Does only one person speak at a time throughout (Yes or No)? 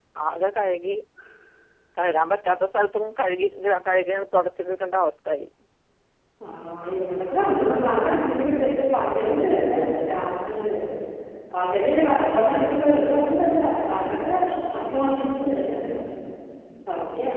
Yes